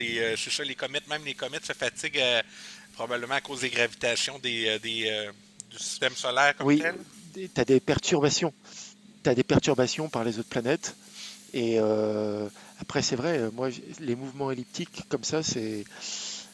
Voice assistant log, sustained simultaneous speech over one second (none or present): none